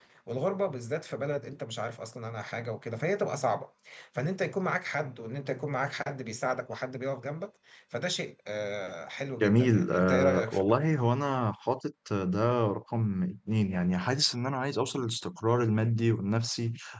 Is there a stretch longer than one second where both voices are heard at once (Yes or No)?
Yes